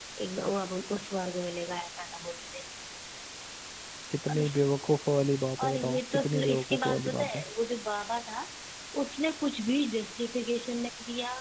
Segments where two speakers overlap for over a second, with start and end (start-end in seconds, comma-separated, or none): 5.7-7.4